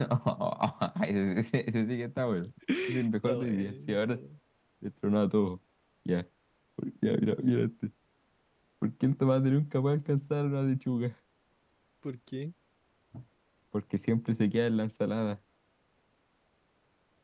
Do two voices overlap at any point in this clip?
Yes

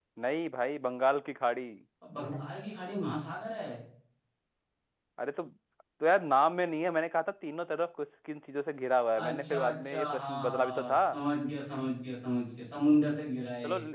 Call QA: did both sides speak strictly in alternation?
No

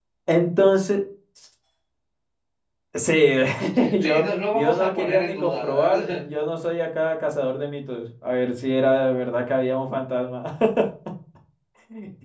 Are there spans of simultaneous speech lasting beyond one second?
Yes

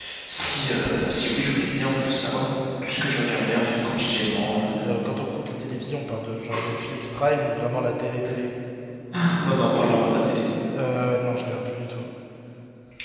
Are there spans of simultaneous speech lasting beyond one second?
No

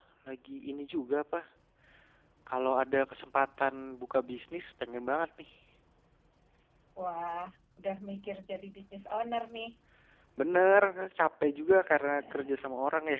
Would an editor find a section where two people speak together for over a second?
No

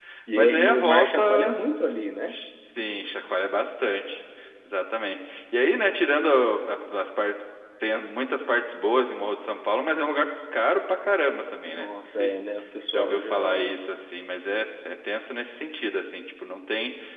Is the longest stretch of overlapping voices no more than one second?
No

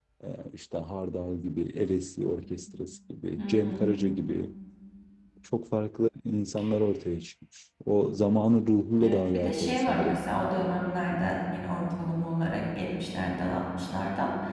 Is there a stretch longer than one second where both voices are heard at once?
Yes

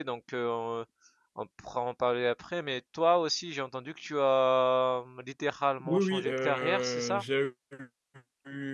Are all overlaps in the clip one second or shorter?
No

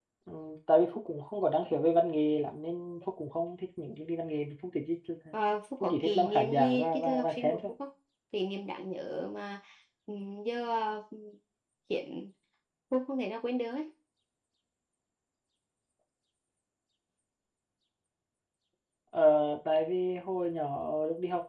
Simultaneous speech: Yes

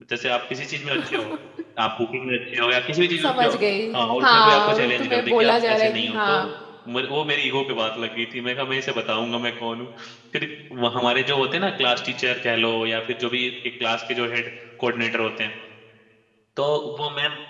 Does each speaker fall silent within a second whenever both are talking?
No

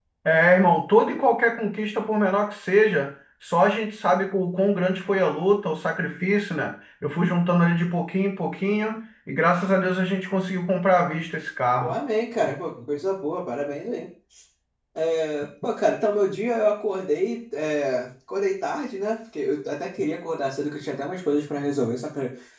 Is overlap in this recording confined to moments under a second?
Yes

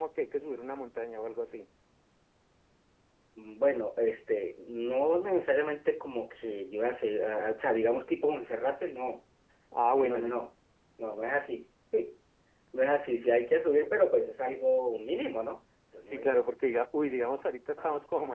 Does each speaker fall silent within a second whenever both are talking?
Yes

